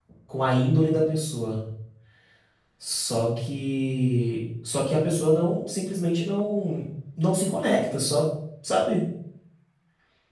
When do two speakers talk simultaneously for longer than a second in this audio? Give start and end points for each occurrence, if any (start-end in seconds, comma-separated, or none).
none